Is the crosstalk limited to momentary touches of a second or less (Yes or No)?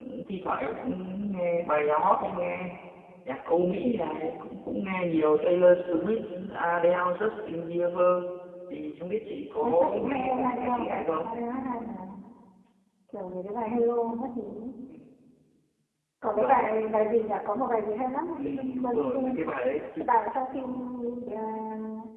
No